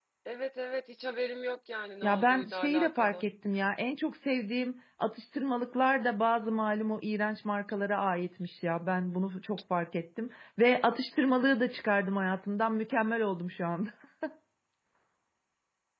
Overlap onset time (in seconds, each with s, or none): 2.0 s